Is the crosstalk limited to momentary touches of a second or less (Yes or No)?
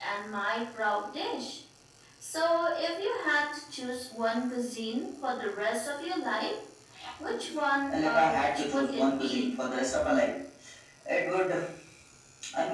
No